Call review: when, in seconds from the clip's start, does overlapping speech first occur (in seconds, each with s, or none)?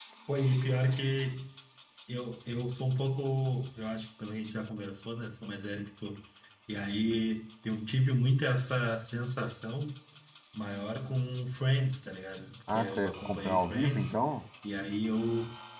12.7 s